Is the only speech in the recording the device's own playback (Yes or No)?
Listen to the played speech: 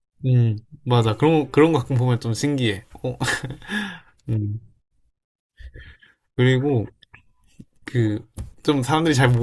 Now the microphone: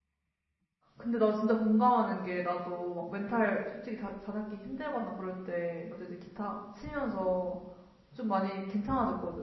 No